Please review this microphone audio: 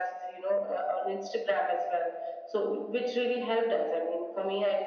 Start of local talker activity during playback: none

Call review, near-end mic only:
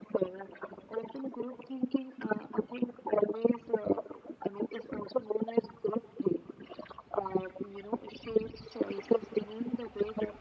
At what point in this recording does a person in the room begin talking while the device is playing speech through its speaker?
none

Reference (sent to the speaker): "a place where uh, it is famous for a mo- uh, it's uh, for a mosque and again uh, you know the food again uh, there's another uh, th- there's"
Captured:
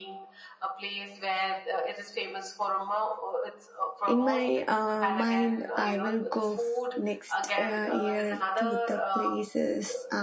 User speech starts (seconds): 4.0 s

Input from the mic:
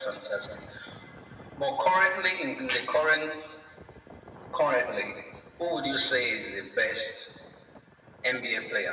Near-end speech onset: none

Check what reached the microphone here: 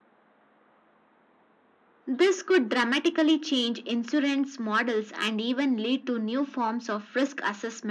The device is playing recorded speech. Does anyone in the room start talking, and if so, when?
none

